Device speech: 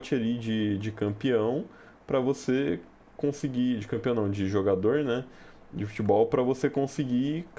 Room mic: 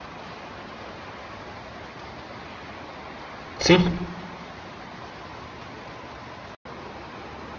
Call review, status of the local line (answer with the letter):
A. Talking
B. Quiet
A